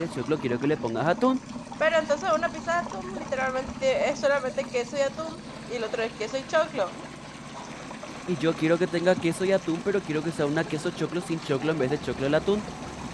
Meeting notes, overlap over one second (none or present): none